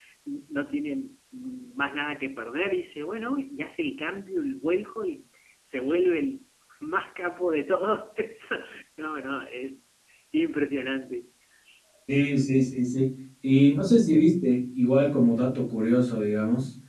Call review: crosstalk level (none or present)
none